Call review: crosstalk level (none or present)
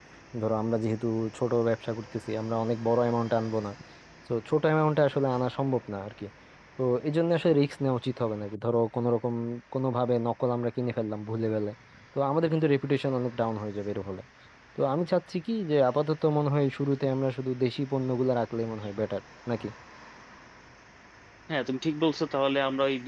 none